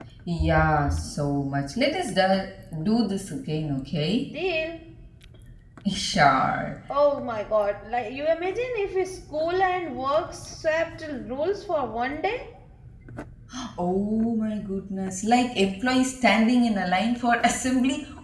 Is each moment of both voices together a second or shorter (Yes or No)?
Yes